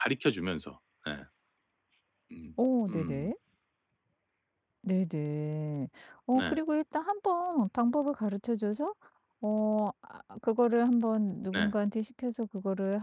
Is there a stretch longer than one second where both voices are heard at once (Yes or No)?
No